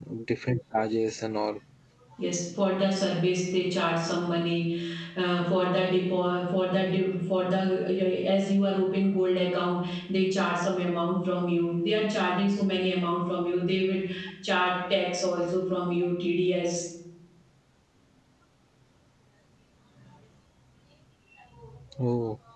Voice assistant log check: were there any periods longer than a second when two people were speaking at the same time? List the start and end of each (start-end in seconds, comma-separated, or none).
none